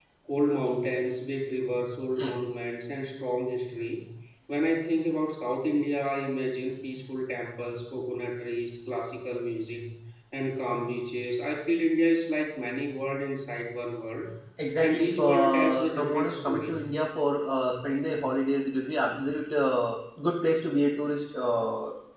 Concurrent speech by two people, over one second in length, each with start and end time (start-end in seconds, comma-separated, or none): 14.8-16.8